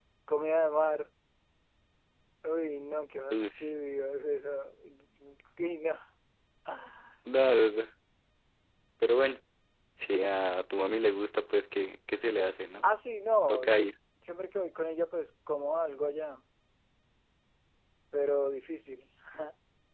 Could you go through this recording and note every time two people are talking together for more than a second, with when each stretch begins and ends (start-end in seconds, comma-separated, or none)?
none